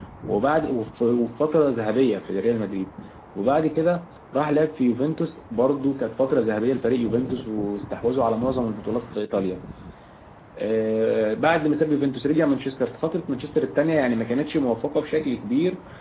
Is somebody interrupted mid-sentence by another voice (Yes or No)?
No